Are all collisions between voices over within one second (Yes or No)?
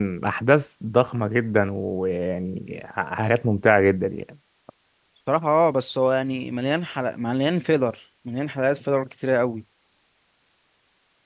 Yes